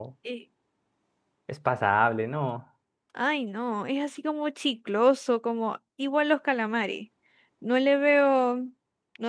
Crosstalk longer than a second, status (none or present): none